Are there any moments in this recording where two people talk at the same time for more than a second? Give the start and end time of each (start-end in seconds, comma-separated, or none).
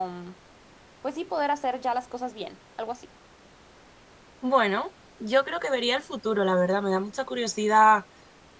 none